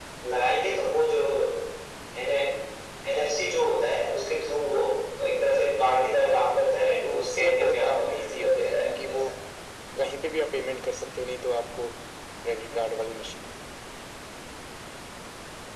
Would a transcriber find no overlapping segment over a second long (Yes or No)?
No